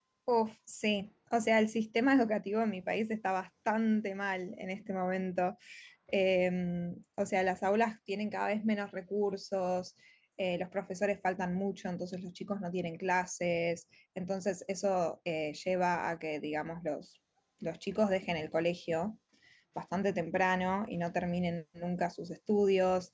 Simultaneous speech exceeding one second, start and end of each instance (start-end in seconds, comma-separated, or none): none